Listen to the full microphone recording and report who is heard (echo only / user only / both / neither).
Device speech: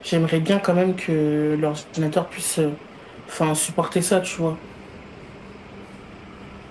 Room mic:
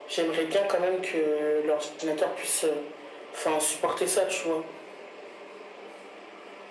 echo only